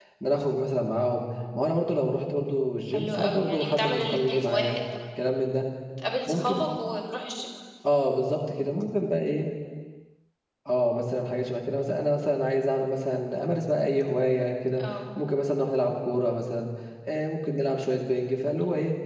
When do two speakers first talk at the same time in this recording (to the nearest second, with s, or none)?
3 s